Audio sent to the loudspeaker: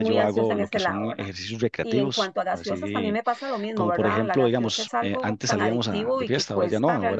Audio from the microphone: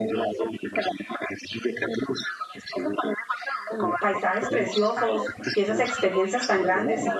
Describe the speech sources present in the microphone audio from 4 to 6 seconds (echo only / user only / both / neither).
both